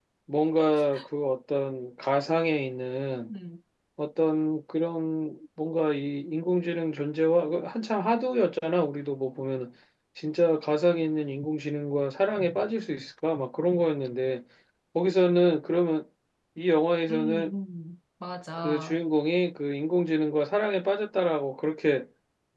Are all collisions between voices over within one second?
Yes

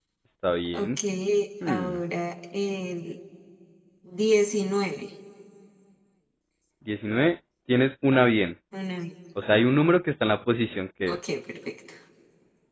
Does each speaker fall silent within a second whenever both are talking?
Yes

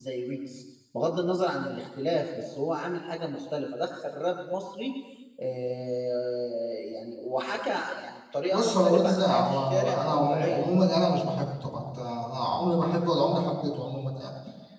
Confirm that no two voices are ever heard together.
No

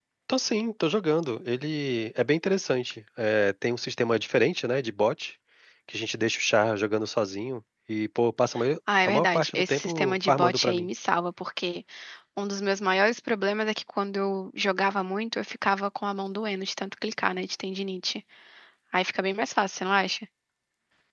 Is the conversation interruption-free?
No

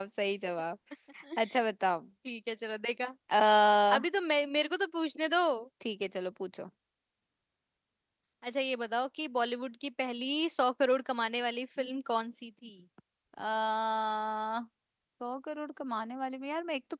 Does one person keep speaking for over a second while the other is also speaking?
No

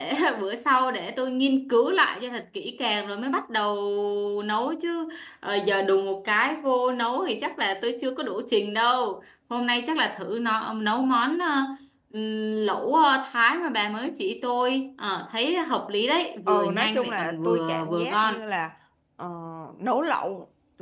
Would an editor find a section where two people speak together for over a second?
Yes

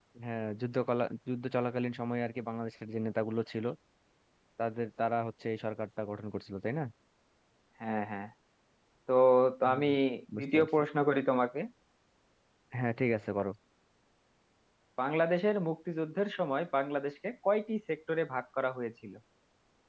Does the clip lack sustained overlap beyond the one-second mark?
Yes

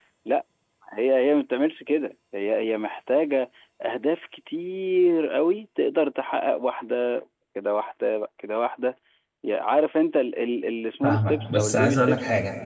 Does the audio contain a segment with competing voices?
Yes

